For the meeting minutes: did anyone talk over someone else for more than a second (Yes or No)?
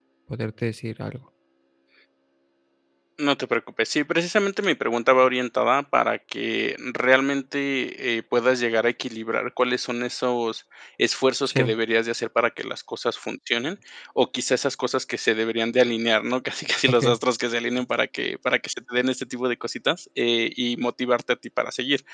No